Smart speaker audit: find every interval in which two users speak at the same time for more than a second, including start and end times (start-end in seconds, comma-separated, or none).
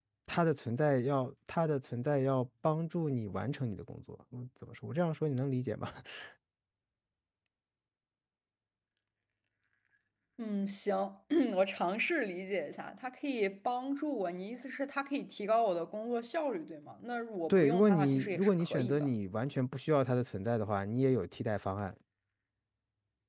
17.5-19.1